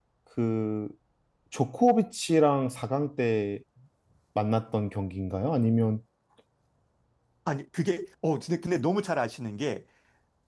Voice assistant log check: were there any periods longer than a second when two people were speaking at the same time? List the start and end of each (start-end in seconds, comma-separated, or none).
none